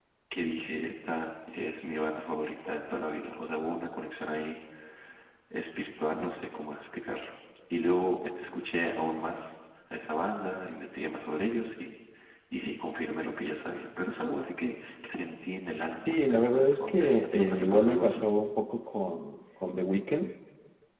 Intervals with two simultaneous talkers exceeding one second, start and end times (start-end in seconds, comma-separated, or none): 16.1-18.2